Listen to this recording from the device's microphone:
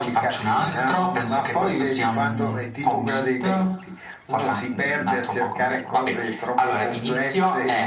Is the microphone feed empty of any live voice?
Yes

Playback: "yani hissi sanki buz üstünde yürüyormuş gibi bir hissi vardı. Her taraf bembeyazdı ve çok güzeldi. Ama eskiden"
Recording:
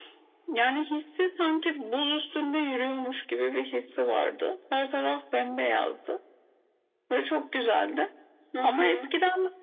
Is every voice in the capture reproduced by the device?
No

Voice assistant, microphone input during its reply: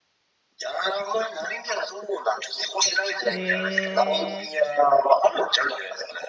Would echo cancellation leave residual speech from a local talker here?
Yes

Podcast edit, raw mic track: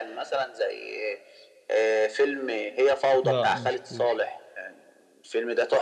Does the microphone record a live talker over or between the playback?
Yes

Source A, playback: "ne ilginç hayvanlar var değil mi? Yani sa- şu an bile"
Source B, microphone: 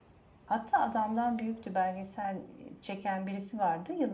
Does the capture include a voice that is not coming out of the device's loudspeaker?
Yes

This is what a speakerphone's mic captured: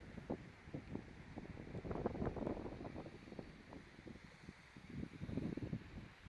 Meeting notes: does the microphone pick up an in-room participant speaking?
No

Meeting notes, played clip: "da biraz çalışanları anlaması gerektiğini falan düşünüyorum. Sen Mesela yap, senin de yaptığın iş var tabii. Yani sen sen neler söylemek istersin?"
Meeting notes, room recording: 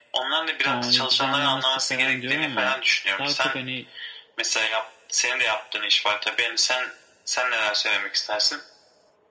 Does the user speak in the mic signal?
Yes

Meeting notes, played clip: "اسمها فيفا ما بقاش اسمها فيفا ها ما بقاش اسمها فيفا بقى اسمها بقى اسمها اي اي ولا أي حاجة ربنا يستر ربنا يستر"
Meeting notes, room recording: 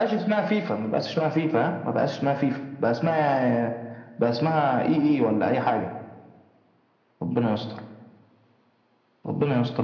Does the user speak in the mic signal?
No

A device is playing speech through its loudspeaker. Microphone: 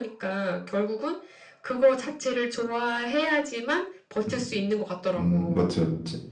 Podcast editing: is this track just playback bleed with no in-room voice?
No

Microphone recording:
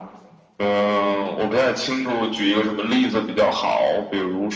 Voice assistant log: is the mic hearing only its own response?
Yes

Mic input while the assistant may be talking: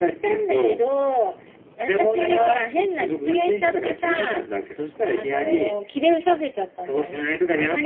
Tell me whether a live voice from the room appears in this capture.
No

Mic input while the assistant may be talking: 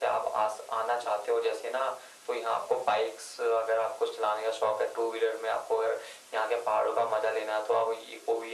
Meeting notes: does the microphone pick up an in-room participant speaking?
No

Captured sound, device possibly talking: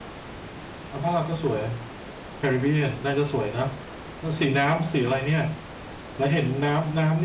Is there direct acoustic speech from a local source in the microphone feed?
Yes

